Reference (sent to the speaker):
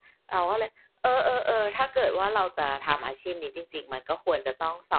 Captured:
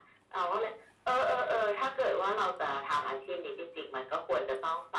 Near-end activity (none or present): none